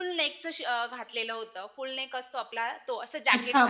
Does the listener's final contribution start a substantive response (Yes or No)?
Yes